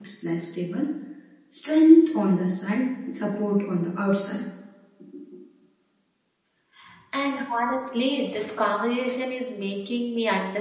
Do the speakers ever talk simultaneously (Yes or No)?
No